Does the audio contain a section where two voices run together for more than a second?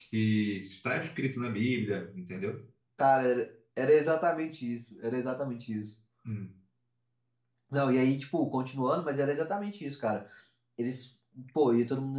No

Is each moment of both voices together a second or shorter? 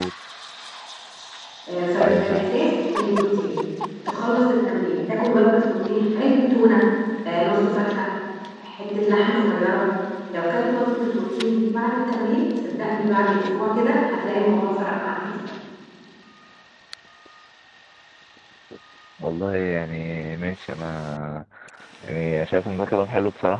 Yes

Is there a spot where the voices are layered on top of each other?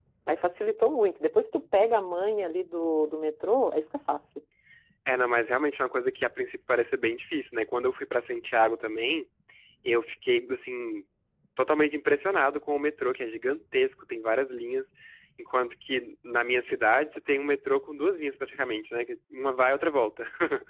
No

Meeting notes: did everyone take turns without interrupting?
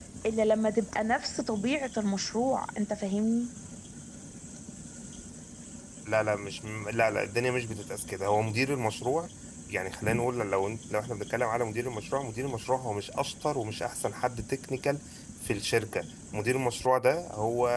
Yes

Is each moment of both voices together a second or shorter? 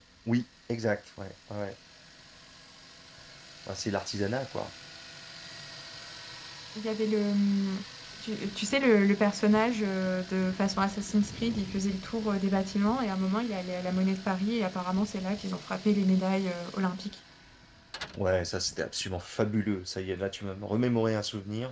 Yes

